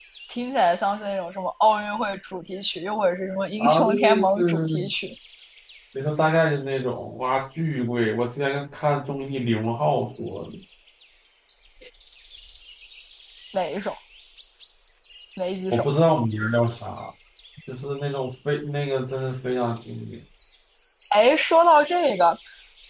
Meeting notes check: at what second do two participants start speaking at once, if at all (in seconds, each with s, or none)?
3.6 s